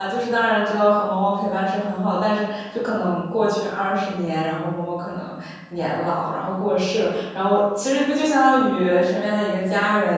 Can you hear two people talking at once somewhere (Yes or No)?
No